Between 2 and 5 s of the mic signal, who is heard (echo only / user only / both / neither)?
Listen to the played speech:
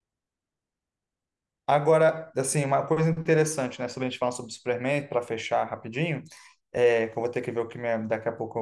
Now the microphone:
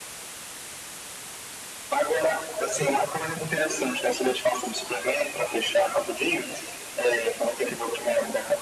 echo only